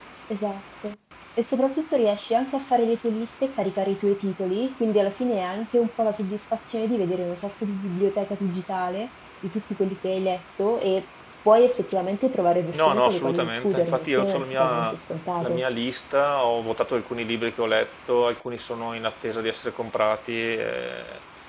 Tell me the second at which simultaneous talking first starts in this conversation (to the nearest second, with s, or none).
13 s